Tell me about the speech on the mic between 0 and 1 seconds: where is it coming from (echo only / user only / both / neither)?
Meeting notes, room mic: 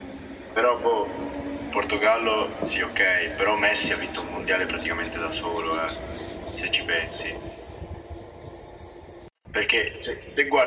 echo only